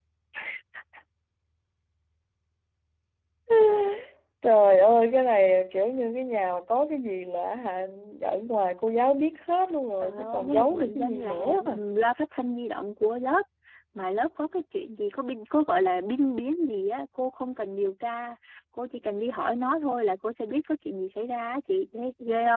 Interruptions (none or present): present